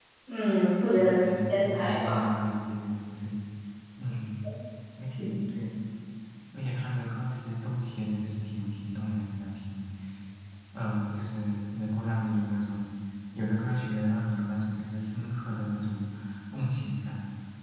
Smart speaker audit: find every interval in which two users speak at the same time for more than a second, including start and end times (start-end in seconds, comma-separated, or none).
0.9-2.3